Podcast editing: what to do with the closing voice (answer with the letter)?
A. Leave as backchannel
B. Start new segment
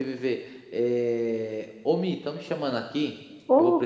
A